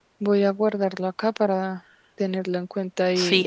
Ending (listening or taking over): taking over